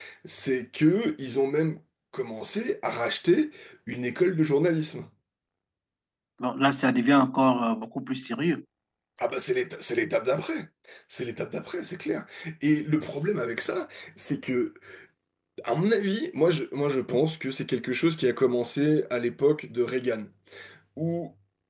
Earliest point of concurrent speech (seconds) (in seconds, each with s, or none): none